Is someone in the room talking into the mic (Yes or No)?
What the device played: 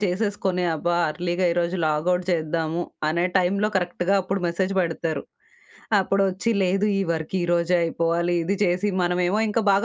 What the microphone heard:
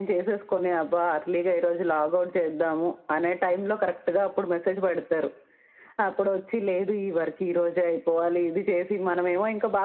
No